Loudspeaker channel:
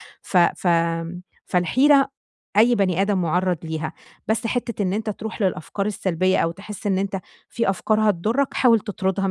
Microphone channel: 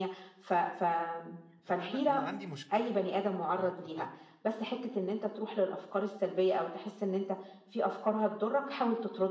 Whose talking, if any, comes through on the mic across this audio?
both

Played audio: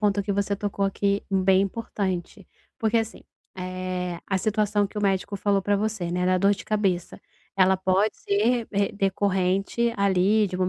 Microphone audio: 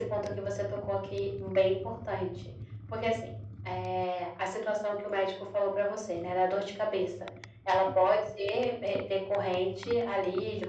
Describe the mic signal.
echo only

